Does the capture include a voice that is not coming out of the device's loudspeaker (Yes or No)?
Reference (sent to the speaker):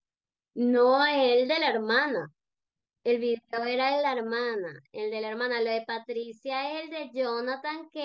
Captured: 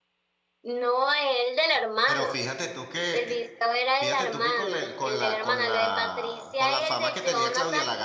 Yes